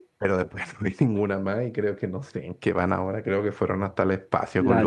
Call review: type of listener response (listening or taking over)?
taking over